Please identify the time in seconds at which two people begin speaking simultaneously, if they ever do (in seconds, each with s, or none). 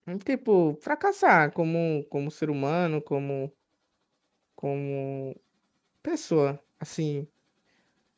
none